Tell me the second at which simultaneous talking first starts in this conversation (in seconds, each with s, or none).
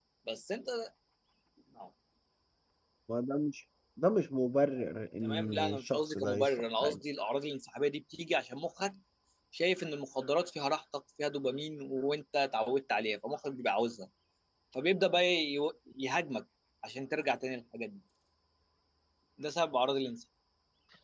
5.2 s